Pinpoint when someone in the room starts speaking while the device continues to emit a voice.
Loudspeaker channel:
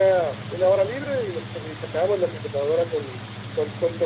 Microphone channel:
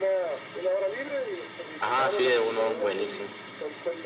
1.8 s

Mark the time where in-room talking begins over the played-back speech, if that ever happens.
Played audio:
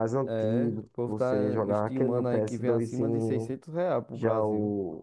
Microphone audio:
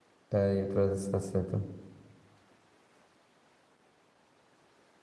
0.3 s

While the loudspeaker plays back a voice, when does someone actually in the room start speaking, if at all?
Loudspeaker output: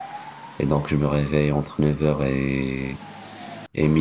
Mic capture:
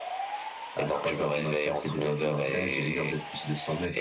0.8 s

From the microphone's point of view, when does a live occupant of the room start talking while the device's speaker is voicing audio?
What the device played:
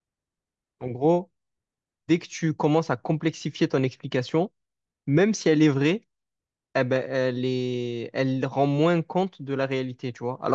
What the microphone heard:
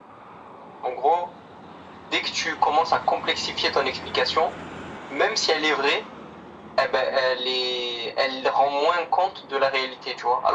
none

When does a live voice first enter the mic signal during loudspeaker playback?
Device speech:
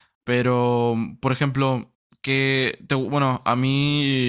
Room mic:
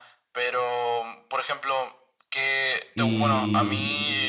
2.9 s

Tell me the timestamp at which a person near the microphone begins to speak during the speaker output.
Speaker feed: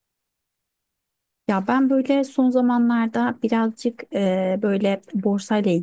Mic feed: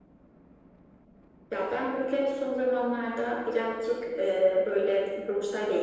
none

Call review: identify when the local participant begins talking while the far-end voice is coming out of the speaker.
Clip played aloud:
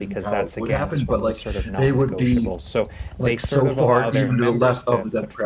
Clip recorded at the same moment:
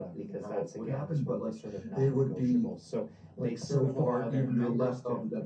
none

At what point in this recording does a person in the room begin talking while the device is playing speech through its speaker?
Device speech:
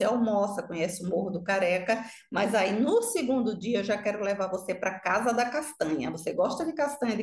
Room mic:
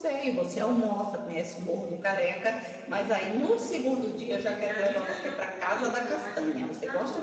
4.6 s

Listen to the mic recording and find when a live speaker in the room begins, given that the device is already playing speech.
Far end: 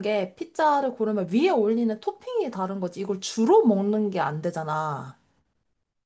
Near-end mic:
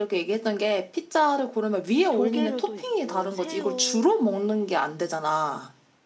2.1 s

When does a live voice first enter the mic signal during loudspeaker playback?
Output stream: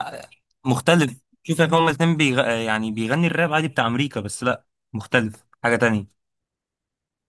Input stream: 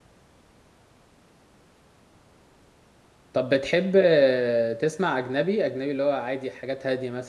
3.3 s

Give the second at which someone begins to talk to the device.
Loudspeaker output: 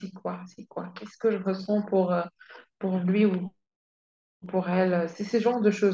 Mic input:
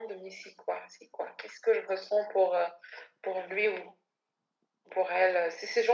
none

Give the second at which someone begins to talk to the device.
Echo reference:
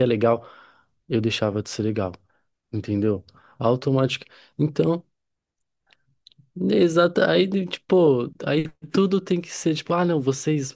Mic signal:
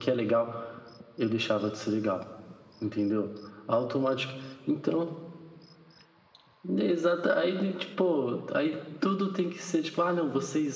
none

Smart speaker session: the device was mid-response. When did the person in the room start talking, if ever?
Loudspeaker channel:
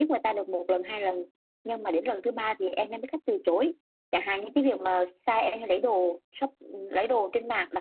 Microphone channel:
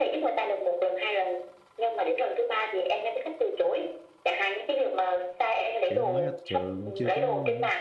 5.8 s

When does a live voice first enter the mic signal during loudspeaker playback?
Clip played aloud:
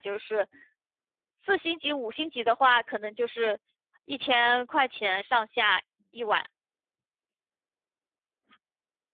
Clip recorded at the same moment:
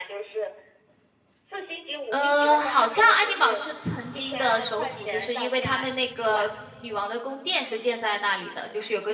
2.1 s

